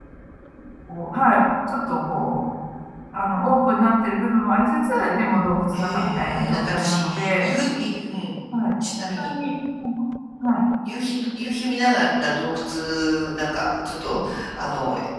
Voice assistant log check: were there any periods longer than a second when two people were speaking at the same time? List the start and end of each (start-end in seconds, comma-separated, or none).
5.7-7.5